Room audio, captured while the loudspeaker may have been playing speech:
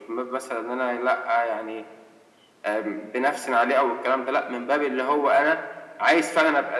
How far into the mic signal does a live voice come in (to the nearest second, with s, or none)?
none